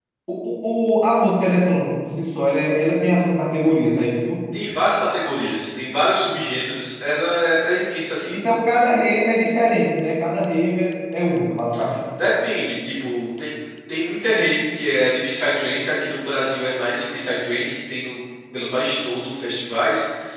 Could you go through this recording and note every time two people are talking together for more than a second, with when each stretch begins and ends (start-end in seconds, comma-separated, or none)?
none